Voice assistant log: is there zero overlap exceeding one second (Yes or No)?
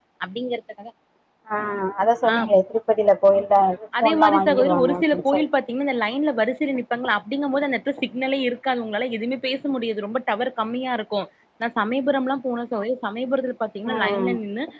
No